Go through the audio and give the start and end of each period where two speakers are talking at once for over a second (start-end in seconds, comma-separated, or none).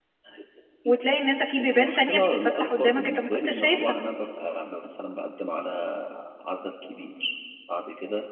1.6-4.0